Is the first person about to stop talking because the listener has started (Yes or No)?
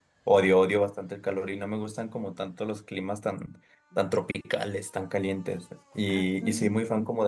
No